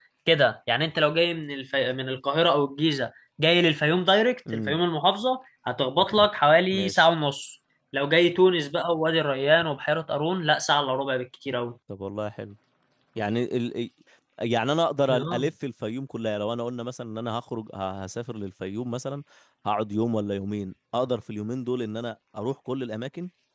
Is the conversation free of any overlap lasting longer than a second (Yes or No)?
Yes